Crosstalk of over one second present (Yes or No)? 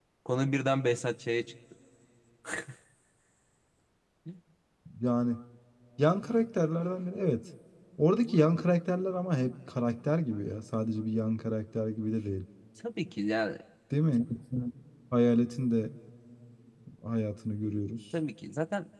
No